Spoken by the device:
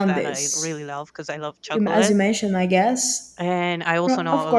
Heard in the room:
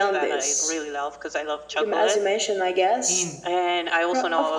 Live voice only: in

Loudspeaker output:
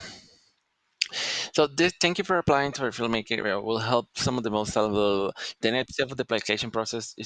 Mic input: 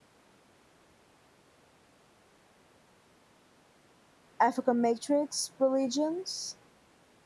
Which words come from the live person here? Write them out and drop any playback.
African matrix religions.

